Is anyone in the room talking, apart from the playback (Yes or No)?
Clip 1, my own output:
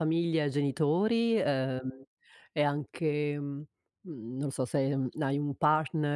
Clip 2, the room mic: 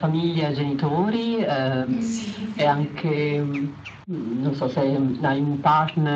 Yes